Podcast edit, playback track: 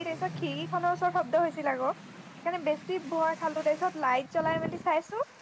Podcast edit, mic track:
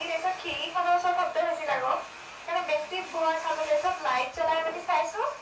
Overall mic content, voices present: echo only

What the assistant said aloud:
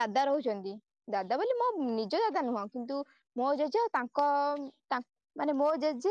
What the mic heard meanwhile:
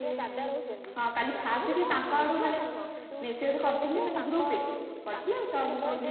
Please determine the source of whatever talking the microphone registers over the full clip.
both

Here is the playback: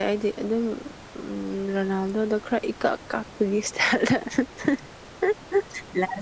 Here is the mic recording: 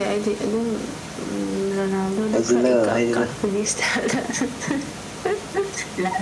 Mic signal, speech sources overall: both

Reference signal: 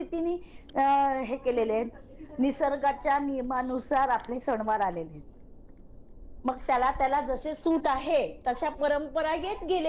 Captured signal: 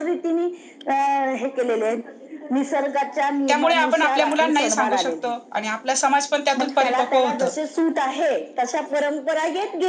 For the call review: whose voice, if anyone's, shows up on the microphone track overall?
both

